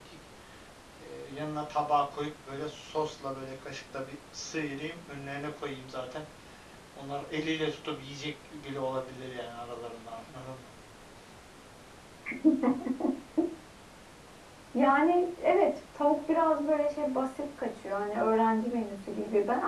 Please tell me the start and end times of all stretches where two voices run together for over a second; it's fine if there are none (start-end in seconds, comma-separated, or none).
none